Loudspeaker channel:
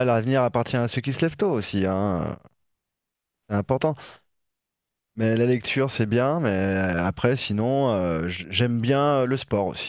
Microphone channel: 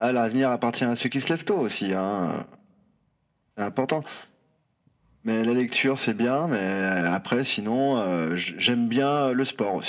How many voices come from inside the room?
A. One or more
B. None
B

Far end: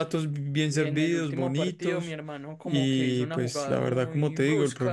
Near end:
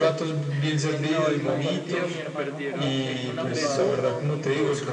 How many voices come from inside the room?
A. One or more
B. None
A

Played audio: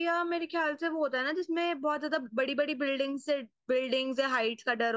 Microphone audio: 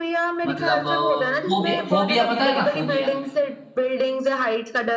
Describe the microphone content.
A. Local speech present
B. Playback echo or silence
A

